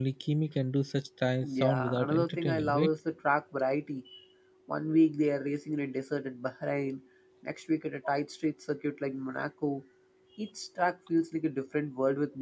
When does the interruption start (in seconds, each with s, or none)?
1.4 s